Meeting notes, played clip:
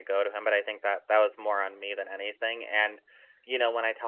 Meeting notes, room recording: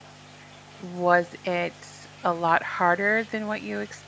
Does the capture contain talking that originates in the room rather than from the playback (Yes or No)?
Yes